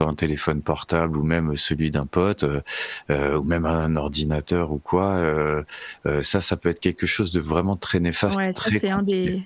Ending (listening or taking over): taking over